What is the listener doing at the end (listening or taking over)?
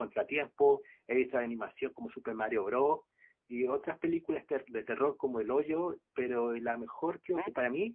listening